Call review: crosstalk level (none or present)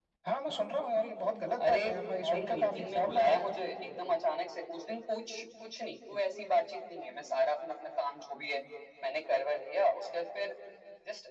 present